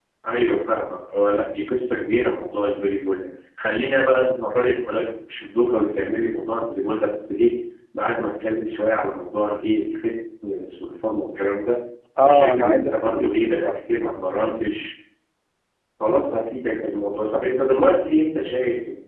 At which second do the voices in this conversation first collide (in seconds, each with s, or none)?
12.2 s